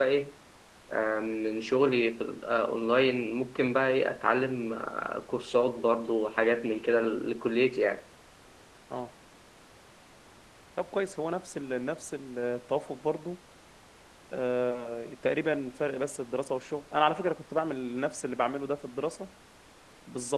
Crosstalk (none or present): none